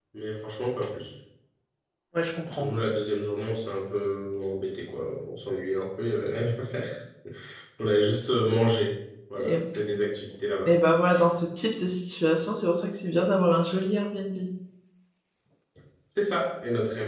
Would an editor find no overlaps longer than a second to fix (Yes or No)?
Yes